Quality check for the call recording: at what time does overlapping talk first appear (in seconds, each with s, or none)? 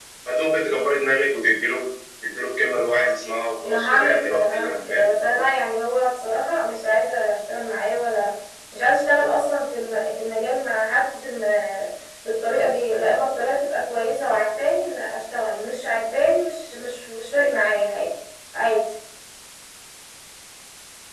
3.6 s